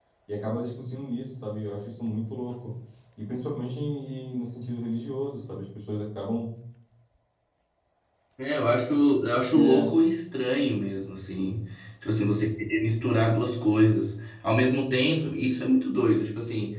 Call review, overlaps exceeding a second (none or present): none